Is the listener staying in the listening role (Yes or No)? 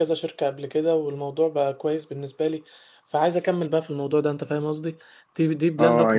No